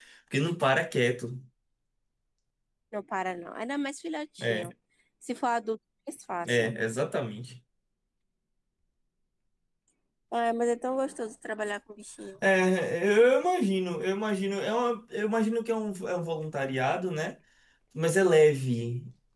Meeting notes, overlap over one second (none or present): none